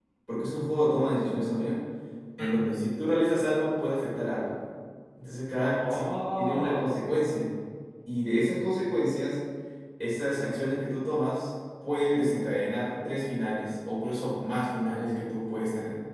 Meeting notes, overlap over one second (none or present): present